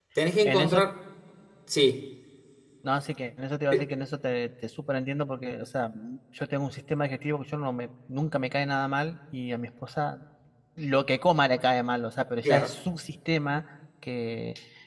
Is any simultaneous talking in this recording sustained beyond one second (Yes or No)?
No